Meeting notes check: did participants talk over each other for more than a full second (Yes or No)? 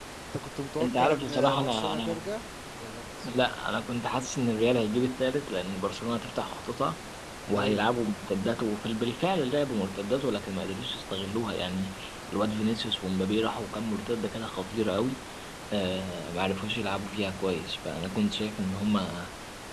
Yes